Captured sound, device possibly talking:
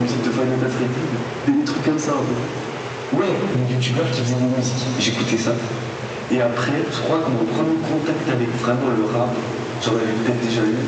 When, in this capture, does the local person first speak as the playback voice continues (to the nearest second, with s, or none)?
none